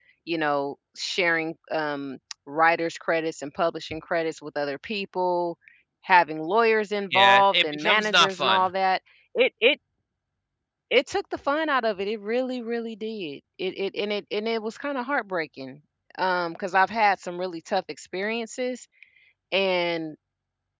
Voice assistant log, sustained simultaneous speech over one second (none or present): present